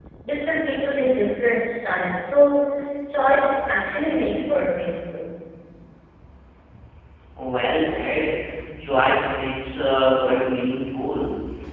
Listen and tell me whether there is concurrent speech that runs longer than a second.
No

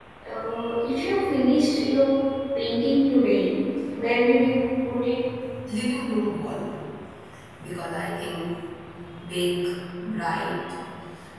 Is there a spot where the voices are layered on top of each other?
No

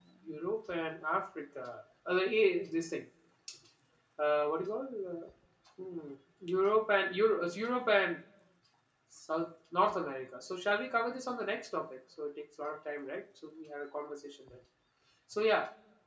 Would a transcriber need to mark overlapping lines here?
No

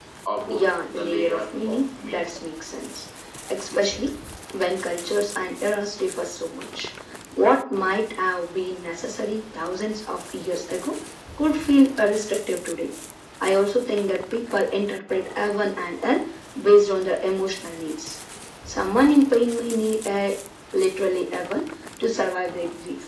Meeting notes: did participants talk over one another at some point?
Yes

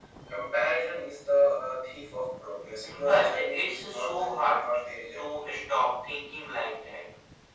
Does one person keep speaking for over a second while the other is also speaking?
Yes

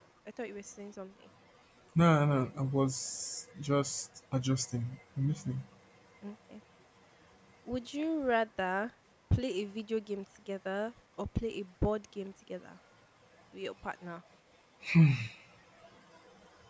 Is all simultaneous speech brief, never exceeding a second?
Yes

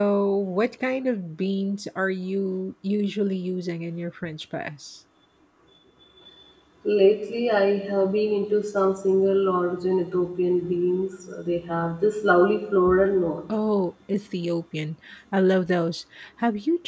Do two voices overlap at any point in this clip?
No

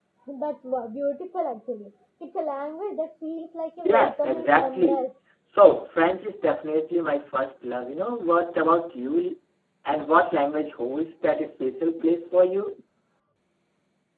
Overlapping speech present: Yes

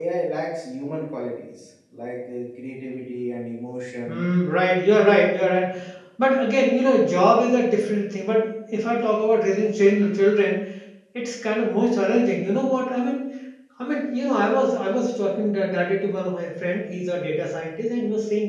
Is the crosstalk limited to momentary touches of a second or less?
Yes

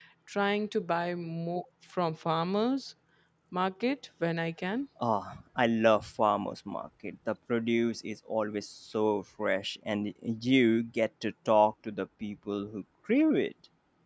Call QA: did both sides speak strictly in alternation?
Yes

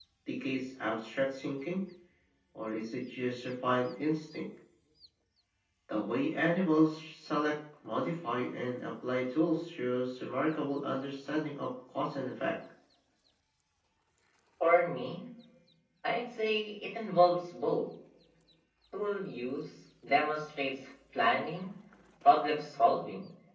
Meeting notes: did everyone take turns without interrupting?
Yes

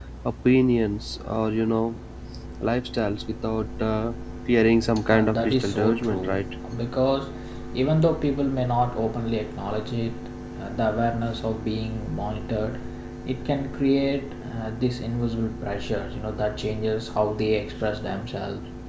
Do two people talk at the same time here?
Yes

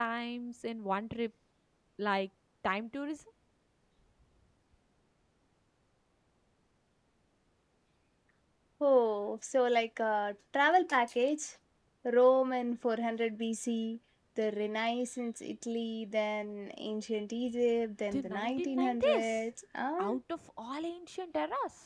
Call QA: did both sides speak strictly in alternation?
No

